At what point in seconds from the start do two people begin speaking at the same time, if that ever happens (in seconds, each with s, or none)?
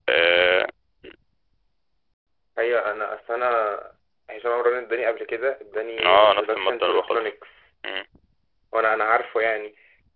6.0 s